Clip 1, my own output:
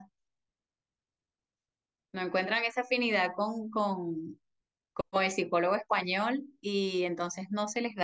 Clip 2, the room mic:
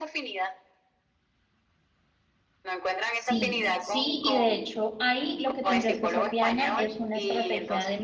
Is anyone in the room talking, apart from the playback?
Yes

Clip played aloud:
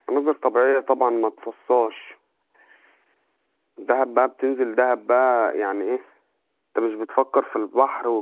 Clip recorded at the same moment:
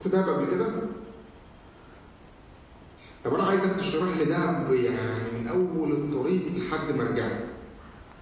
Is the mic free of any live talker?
No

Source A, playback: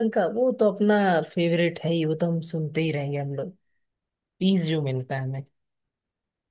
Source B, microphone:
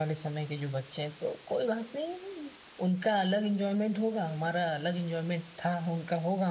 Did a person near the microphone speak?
Yes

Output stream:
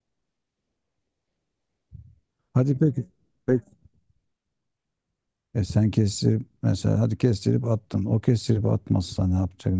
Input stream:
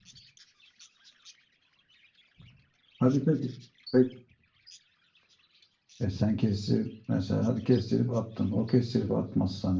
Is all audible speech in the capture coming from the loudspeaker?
Yes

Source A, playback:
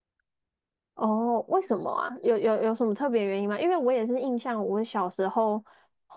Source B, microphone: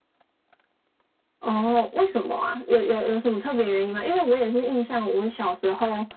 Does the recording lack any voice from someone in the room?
Yes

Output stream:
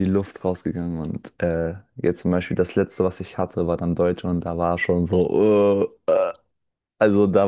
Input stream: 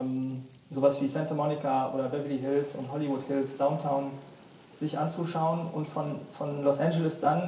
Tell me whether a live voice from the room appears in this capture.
Yes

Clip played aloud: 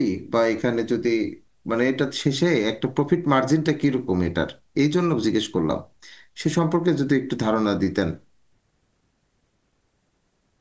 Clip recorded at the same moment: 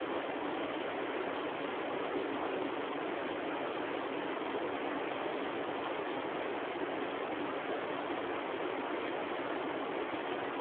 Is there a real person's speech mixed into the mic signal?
No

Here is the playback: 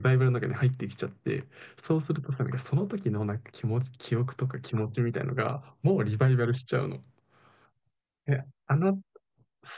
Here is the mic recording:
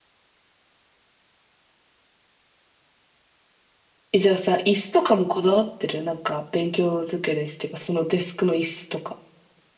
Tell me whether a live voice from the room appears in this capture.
Yes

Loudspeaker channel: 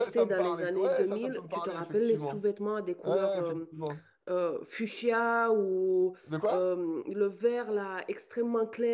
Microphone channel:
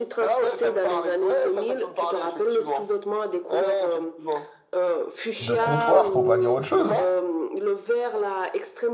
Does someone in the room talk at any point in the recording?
Yes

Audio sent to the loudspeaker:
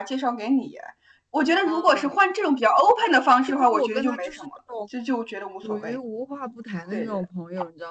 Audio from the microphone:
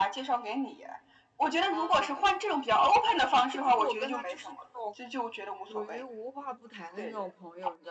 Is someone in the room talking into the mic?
No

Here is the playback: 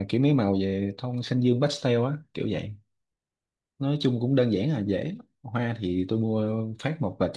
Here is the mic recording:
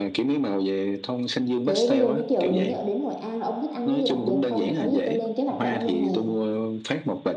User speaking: Yes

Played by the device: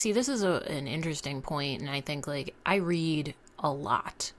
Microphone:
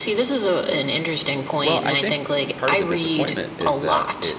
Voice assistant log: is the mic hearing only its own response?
No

